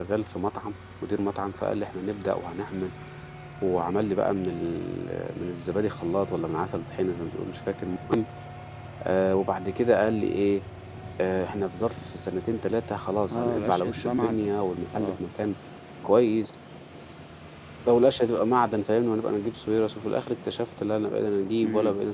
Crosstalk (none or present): present